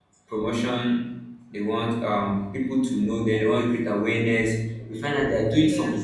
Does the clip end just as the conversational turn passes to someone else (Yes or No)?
No